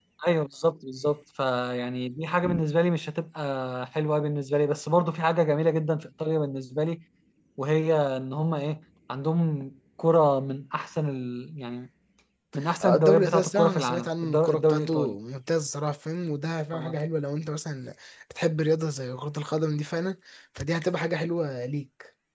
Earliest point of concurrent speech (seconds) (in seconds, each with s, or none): 12.8 s